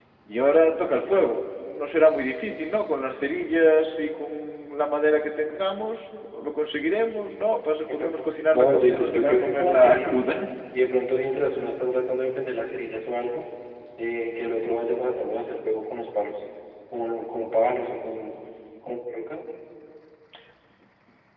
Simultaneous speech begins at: 8.5 s

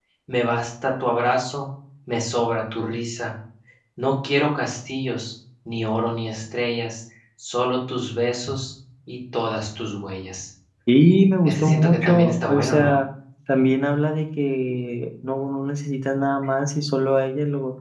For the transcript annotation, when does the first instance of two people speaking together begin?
11.4 s

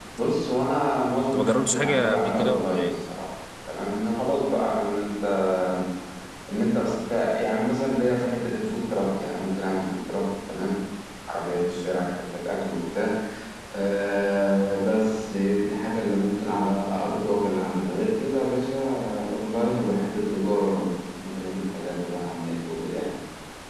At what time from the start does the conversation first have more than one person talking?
1.3 s

